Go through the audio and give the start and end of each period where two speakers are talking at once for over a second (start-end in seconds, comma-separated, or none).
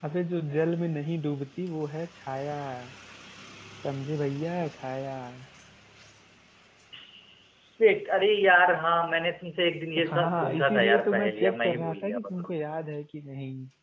10.0-12.5